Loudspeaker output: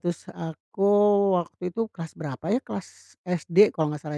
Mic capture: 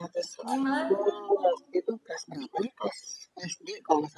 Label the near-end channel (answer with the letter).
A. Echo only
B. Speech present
B